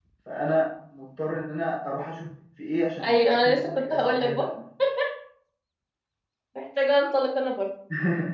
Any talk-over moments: Yes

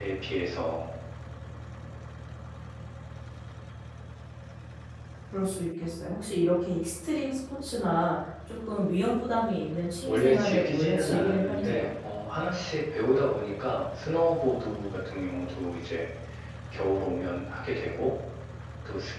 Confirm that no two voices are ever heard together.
No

